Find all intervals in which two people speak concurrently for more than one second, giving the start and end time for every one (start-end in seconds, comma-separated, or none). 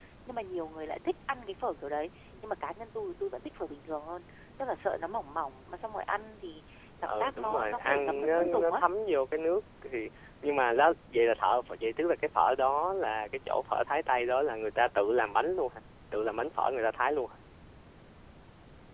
7.0-8.8